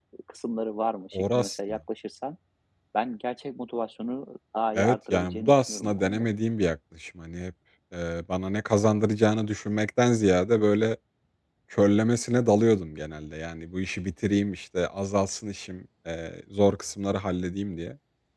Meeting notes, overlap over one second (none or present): present